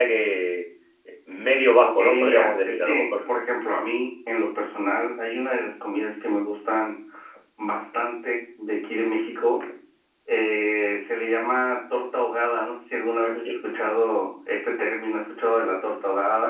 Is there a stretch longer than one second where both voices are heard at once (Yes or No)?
Yes